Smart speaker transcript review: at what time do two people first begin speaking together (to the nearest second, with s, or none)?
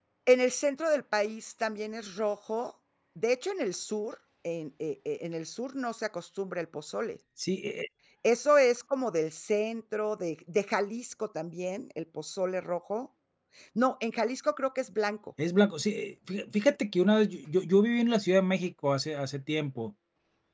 none